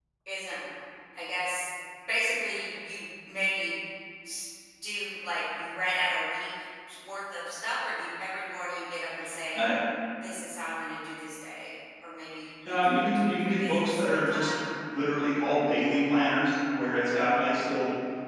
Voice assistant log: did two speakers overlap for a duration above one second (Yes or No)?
Yes